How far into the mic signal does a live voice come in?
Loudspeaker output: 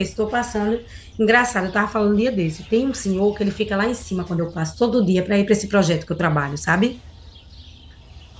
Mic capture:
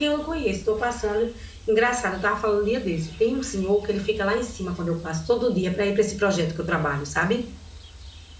none

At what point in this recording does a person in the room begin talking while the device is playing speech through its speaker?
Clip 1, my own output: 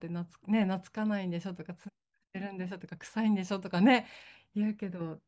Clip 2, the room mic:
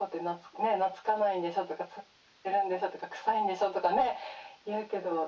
none

